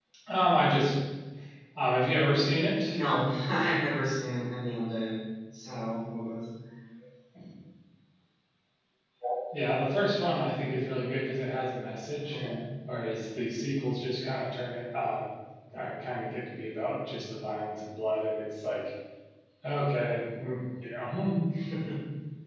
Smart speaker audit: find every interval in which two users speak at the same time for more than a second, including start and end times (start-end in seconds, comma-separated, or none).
none